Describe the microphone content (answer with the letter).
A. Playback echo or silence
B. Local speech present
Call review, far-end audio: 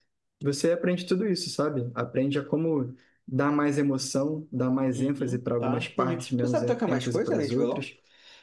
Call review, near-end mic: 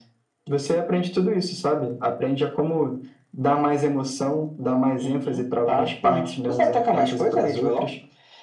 A